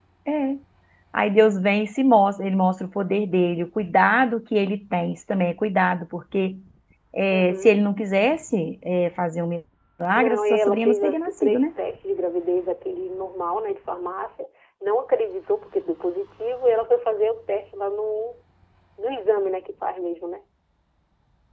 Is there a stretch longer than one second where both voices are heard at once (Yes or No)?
Yes